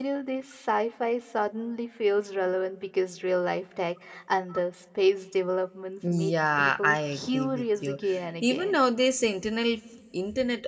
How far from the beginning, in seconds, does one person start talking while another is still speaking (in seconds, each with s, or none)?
6.1 s